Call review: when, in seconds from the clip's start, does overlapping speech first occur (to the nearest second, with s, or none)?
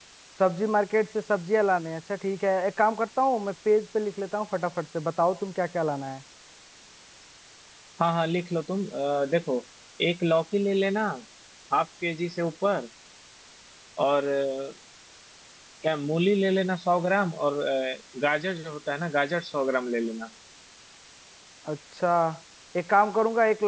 none